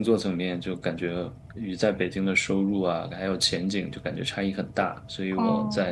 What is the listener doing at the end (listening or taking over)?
listening